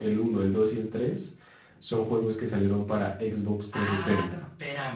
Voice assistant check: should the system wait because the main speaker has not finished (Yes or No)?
No